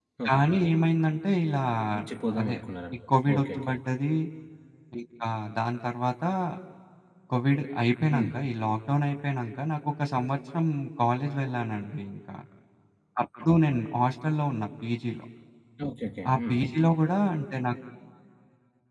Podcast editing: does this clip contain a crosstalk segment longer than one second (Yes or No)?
No